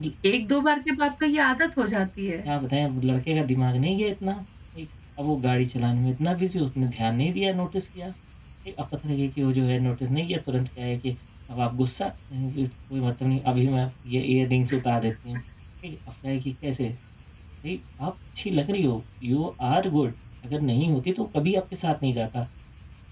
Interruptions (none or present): none